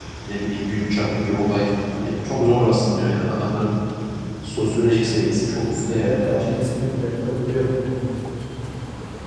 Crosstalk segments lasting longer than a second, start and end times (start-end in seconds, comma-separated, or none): none